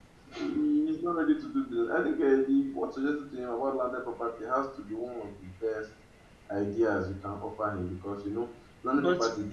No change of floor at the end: Yes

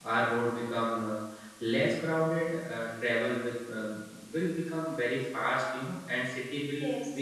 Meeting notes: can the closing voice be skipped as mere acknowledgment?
Yes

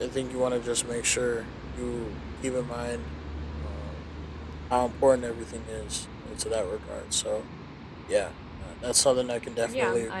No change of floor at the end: No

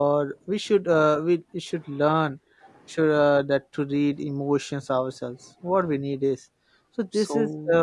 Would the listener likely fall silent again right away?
Yes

